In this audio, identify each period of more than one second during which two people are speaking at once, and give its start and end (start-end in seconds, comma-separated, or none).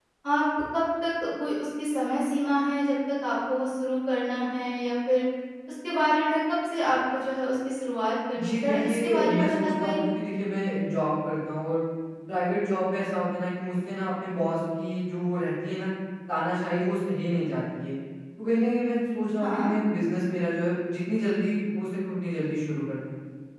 8.4-10.1